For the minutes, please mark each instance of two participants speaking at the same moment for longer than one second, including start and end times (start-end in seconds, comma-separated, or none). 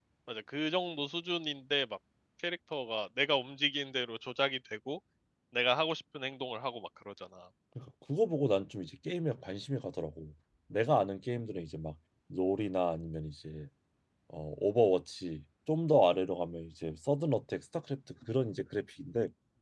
none